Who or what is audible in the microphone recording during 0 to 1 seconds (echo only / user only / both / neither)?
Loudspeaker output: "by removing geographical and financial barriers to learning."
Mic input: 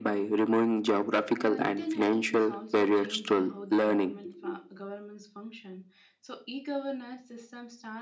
echo only